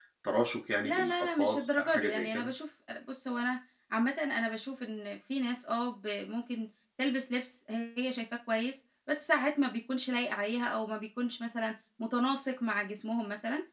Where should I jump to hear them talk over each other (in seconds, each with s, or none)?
0.8 s